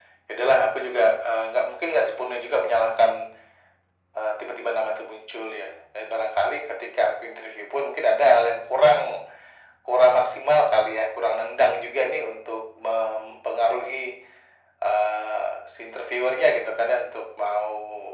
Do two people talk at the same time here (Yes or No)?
No